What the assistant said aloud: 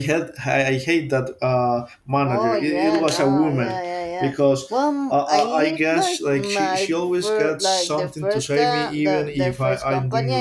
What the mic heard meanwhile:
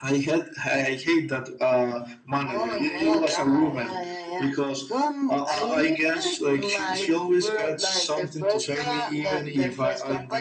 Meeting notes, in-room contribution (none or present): none